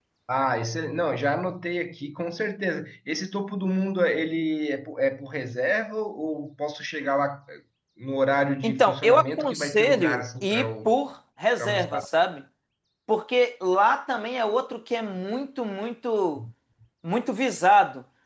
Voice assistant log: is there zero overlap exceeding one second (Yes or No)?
No